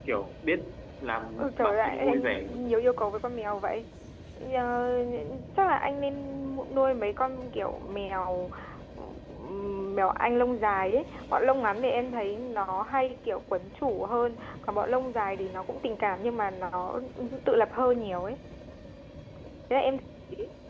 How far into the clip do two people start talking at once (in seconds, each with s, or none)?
1.4 s